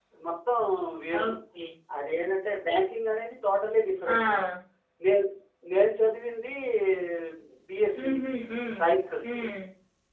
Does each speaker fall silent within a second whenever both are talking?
Yes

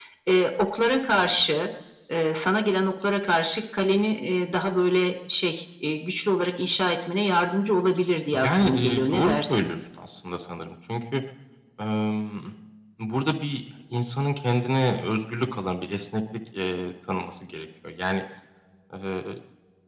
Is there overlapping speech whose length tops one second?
Yes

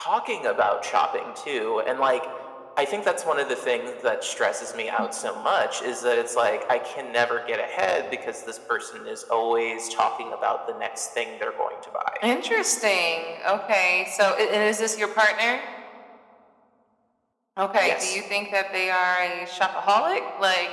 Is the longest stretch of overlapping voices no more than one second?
Yes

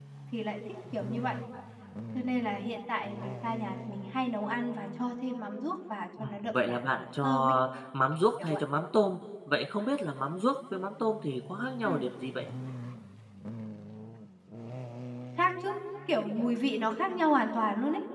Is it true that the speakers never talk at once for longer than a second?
No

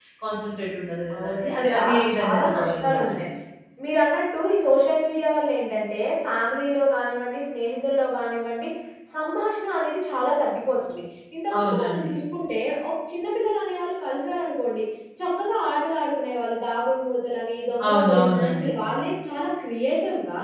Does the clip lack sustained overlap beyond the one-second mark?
No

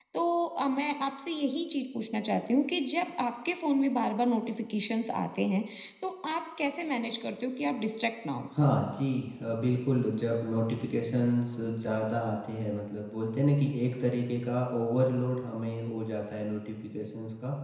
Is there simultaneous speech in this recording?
No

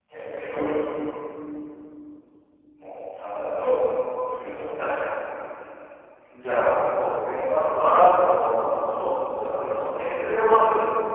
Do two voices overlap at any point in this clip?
No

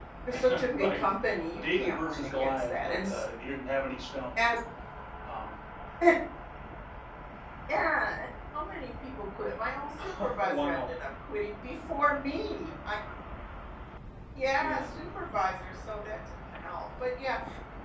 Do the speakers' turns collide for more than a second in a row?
Yes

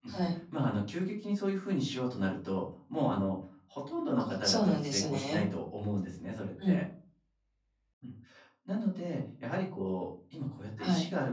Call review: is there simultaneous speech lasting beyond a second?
Yes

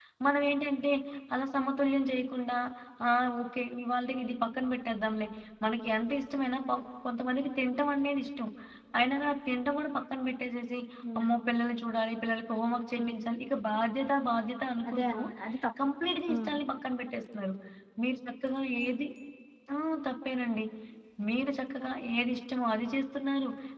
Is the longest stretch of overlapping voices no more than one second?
Yes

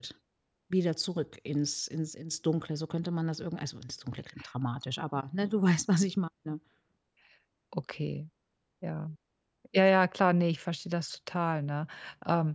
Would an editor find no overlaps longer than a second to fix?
Yes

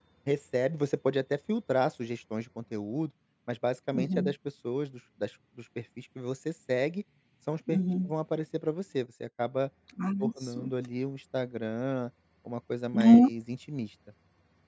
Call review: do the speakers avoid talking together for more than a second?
Yes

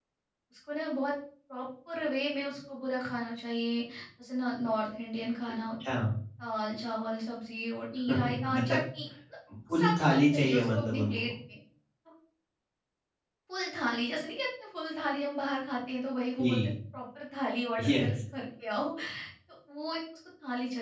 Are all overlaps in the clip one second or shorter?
No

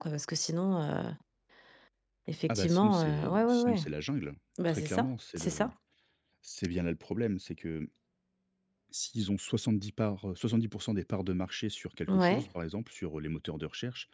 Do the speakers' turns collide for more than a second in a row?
Yes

